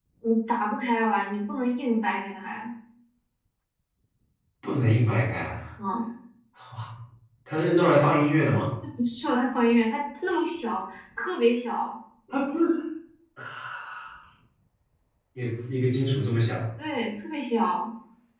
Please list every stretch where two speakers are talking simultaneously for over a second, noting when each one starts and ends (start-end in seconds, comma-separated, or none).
none